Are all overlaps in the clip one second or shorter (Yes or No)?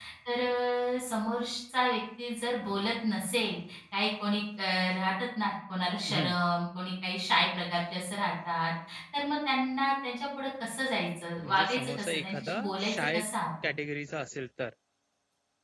No